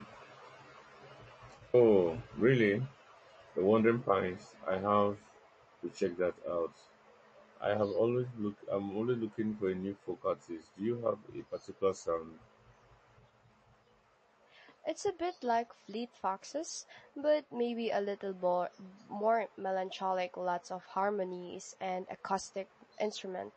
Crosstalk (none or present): none